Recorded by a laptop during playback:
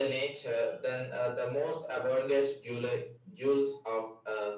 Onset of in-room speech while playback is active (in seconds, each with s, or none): none